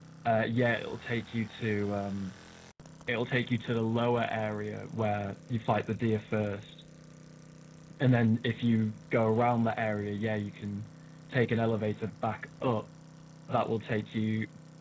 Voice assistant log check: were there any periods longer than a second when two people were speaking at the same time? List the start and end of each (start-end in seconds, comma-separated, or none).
none